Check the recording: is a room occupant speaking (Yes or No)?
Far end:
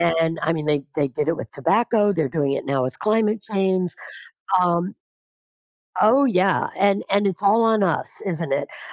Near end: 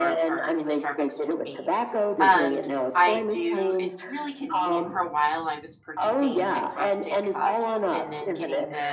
Yes